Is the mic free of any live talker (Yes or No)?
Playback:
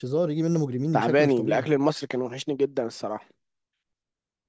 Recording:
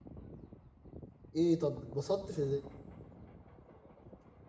No